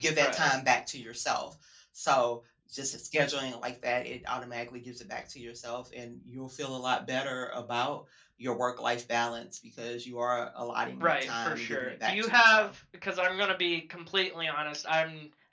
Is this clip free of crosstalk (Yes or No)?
No